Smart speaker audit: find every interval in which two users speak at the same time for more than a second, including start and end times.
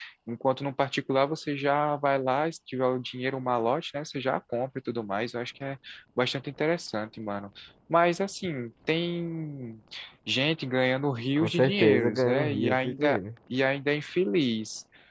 11.4-13.2

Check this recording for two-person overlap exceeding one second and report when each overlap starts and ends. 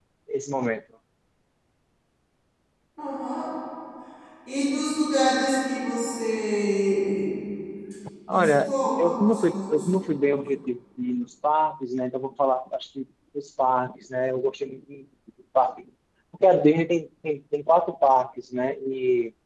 8.3-10.1

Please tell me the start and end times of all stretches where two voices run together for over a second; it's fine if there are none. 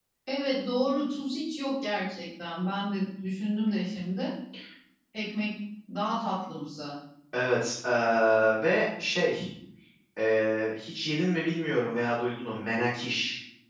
none

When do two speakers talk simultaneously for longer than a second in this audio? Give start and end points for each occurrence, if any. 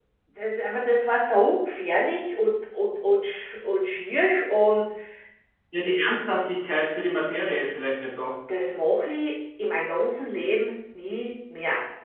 none

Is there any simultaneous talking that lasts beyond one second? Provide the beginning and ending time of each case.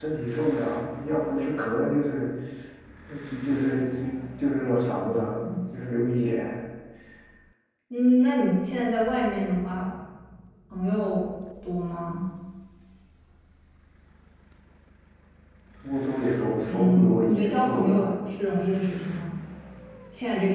16.7-17.9

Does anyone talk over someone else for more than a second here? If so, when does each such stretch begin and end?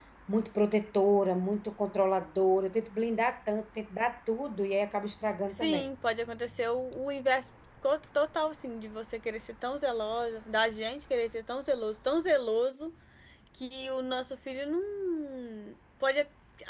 none

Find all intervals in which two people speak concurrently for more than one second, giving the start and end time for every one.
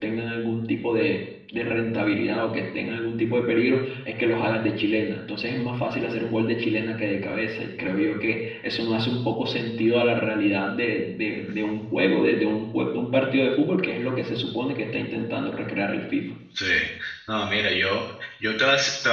none

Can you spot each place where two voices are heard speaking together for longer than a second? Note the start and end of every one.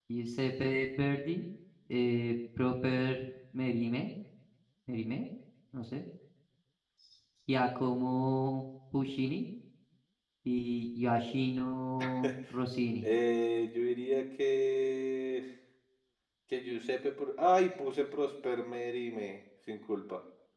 none

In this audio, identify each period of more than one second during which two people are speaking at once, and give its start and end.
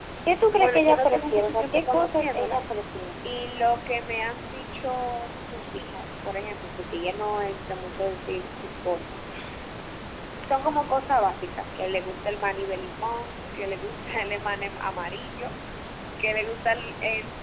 0.5-2.6

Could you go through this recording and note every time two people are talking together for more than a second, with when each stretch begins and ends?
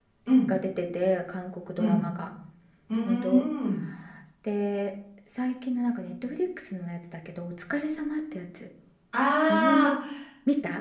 none

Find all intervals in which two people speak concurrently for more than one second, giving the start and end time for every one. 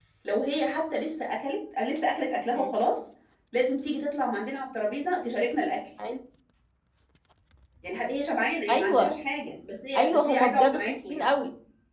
10.0-11.3

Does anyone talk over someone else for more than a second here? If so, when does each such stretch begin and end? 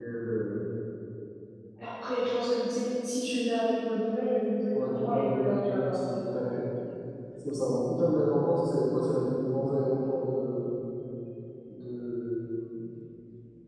4.7-6.0

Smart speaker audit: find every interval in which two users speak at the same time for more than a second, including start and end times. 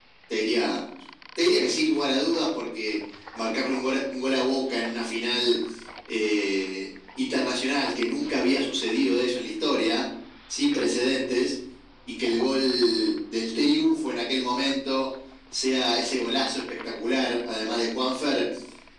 none

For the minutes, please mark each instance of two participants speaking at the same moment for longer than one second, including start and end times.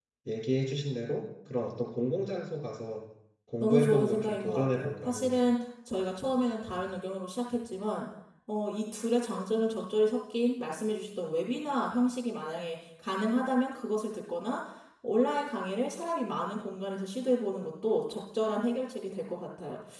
3.6-5.4

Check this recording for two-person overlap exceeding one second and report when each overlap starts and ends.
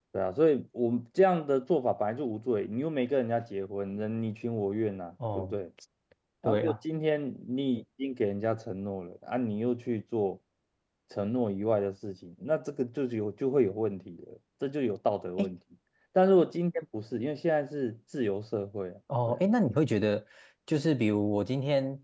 none

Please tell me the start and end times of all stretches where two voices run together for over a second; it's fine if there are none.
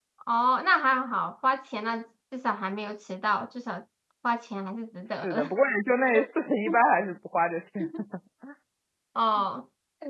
none

